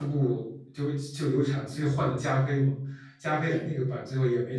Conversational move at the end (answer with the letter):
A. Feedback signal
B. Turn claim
A